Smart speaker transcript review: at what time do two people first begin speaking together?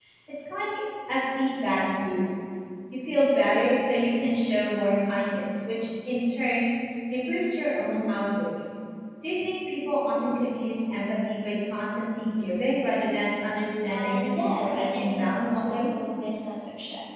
13.9 s

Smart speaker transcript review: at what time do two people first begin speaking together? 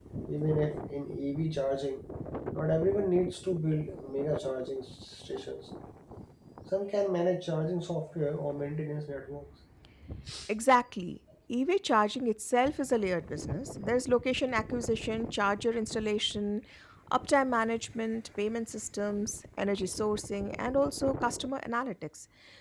none

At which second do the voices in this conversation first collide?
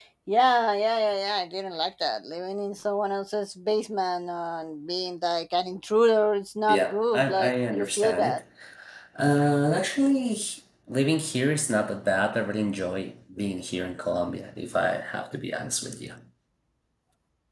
6.7 s

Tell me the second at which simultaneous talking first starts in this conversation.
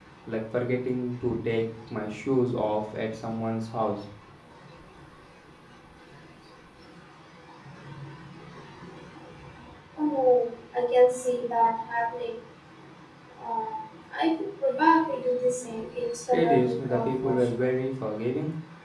16.3 s

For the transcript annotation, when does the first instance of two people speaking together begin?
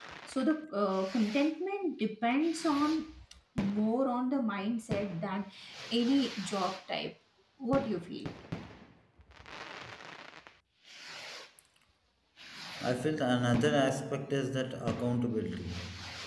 none

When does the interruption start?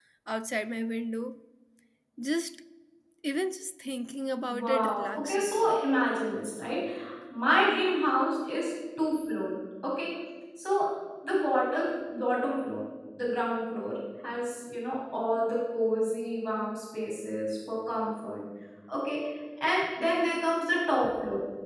4.5 s

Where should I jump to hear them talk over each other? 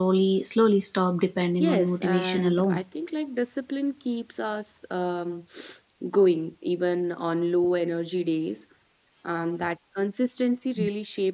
1.6 s

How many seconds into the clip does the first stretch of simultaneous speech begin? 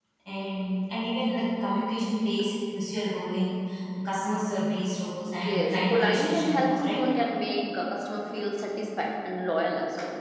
5.3 s

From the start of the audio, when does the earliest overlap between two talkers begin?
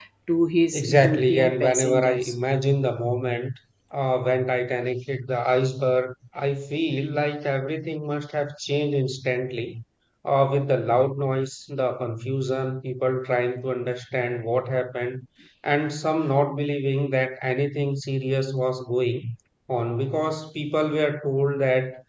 0.7 s

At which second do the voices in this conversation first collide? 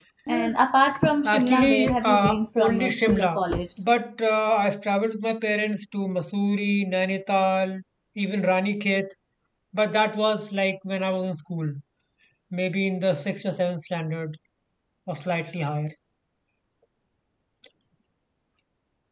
1.2 s

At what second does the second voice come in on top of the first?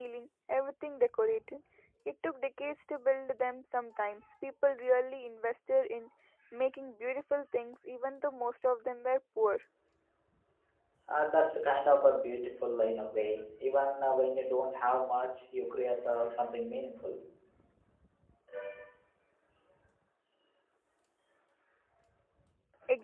none

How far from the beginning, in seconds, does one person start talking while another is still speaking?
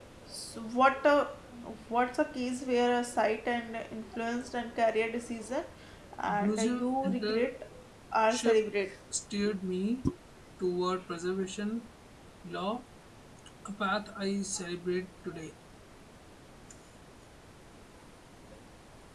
6.3 s

